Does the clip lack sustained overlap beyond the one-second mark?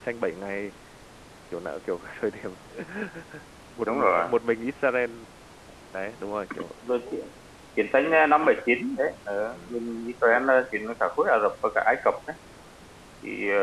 Yes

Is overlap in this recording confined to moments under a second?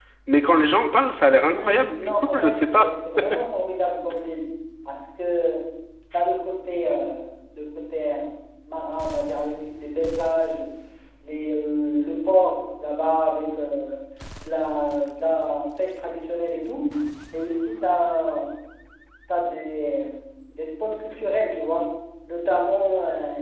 No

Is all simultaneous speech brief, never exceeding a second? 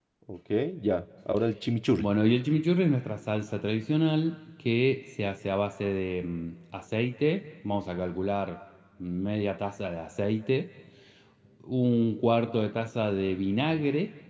Yes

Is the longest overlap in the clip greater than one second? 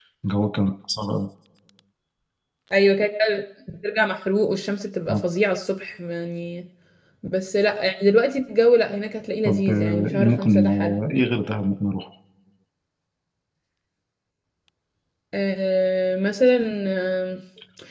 Yes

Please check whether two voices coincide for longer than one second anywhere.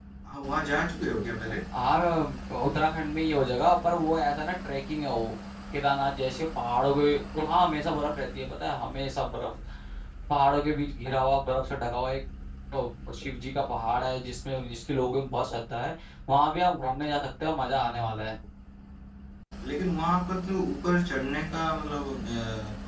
No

